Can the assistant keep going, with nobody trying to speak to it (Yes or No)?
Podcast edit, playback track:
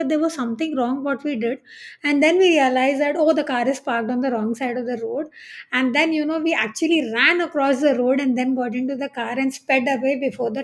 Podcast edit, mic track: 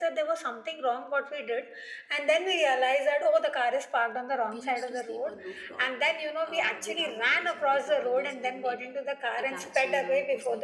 No